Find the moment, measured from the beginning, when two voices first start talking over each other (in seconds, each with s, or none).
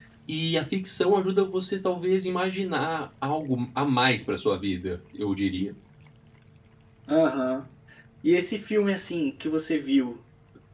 none